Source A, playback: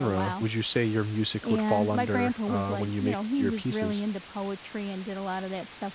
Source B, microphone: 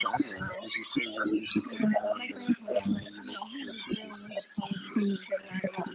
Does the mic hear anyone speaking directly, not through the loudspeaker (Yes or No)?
No